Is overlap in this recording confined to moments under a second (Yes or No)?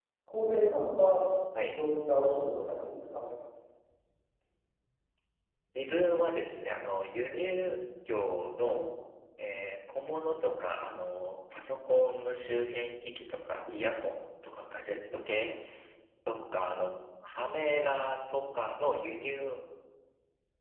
Yes